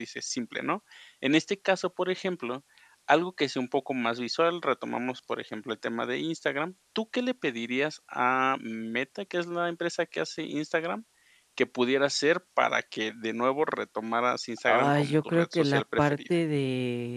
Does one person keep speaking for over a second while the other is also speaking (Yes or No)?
Yes